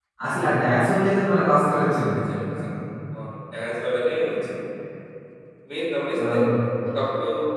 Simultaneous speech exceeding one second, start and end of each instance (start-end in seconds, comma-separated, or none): none